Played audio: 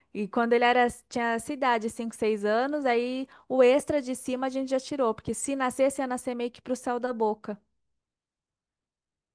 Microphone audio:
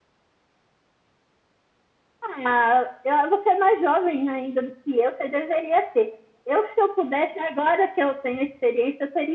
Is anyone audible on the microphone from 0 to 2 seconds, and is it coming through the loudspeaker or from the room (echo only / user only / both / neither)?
neither